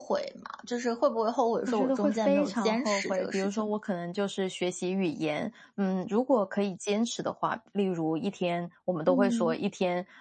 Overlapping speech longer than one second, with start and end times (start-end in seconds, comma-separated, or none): 1.7-3.8